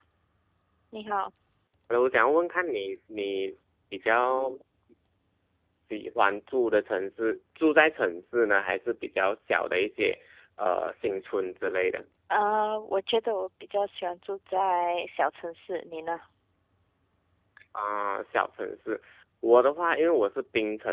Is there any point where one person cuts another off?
No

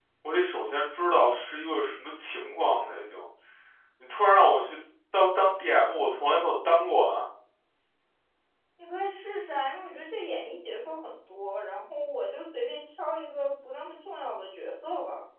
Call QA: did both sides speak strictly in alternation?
Yes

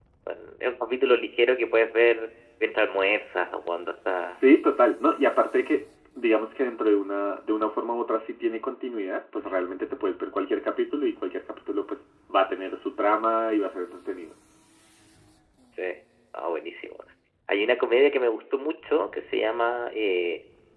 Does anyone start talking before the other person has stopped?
No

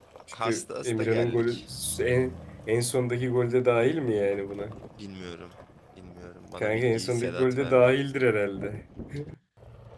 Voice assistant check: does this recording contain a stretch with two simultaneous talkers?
Yes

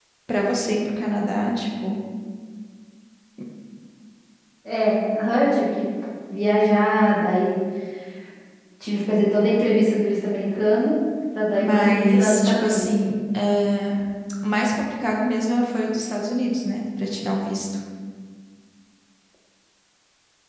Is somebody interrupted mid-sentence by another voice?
Yes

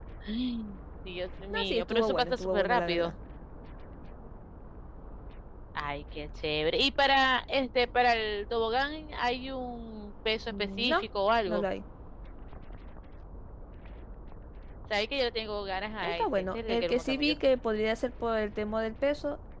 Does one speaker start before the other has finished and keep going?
Yes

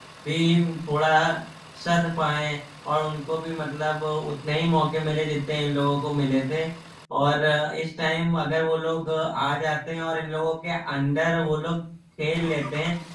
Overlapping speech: No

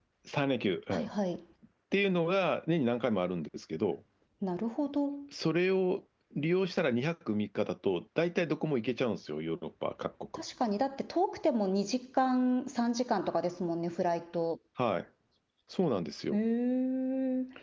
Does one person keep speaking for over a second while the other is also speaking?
No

